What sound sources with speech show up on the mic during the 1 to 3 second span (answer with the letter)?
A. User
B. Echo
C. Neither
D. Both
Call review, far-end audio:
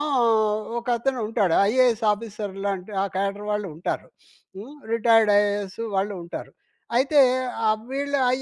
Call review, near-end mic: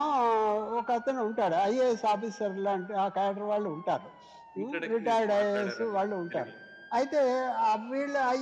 B